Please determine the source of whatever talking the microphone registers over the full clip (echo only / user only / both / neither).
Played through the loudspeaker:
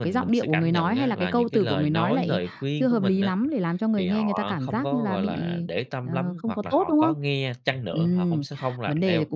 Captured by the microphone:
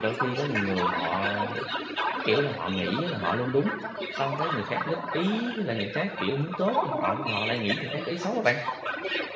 both